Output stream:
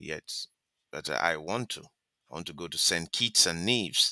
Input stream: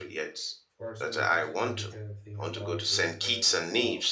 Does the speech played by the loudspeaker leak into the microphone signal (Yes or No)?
Yes